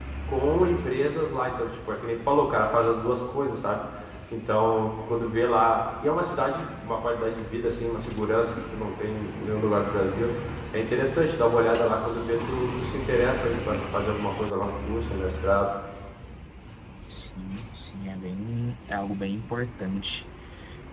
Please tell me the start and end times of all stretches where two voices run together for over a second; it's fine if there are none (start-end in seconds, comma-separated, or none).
none